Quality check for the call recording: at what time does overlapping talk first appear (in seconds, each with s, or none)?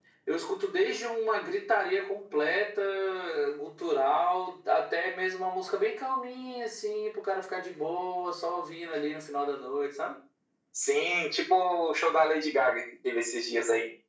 none